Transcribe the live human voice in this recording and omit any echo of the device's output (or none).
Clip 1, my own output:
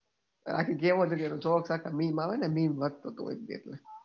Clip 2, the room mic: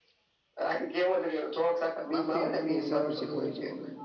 માફી આપવી એસ ચર વસે ભૂલી જાઓ